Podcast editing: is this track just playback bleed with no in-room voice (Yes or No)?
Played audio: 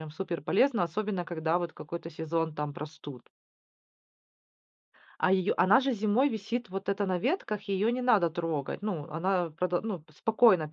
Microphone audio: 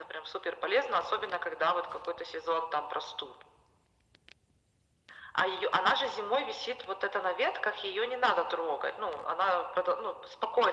Yes